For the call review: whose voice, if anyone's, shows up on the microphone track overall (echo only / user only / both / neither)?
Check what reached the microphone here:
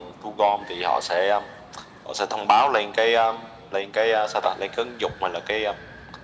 echo only